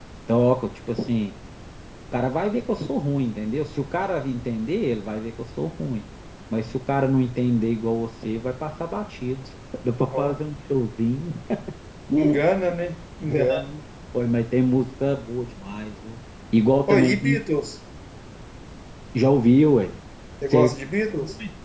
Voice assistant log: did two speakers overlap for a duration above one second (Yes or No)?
No